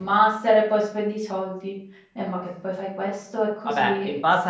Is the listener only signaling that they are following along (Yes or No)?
No